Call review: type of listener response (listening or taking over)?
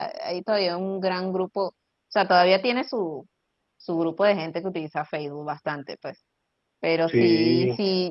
listening